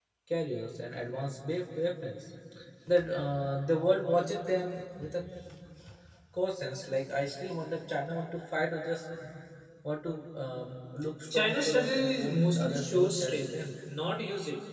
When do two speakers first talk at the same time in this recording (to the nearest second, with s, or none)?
11 s